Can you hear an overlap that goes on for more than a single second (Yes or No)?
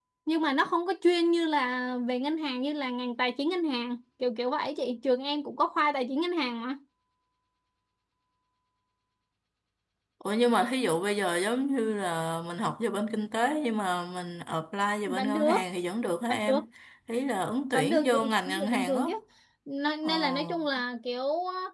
Yes